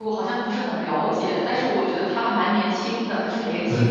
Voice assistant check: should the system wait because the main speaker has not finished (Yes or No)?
No